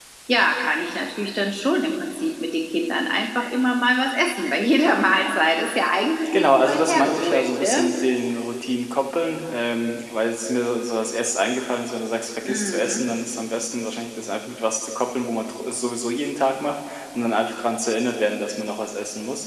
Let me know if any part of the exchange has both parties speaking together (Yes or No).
Yes